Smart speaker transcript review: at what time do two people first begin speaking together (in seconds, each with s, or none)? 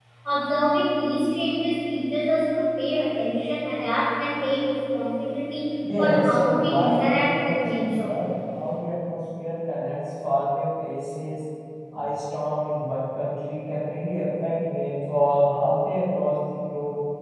5.8 s